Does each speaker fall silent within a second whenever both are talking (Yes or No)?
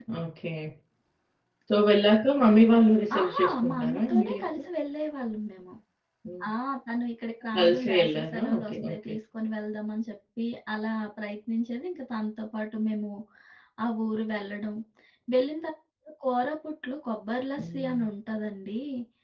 No